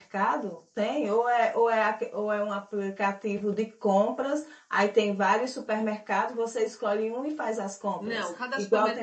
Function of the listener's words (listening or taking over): taking over